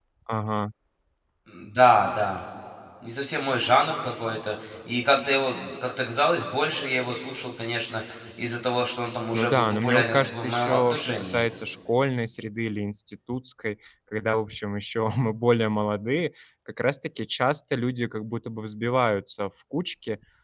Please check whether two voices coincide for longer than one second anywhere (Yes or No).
Yes